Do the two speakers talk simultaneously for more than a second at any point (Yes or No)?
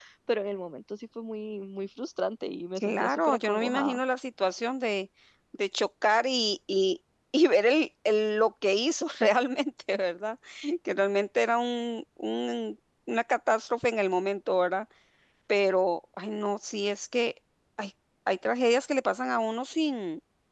Yes